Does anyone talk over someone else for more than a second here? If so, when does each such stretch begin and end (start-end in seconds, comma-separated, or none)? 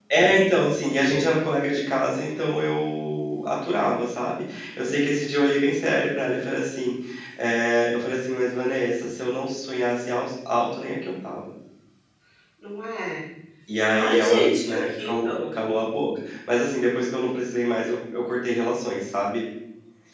14.0-15.5